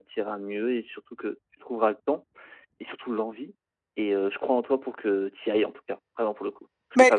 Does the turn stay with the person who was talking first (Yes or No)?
Yes